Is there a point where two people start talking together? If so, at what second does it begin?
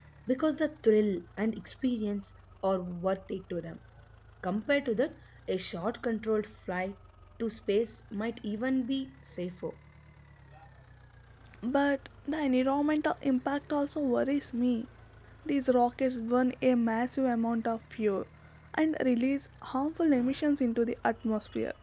none

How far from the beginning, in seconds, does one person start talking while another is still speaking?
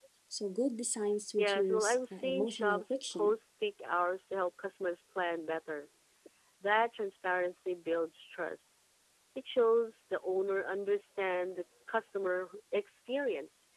1.4 s

